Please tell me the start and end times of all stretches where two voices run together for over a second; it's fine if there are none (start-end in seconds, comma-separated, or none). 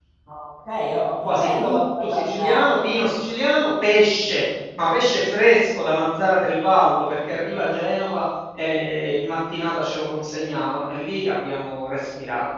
1.2-2.9